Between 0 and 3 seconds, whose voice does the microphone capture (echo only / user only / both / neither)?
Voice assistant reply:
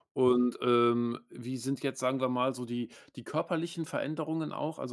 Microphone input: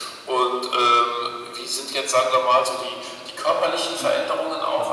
echo only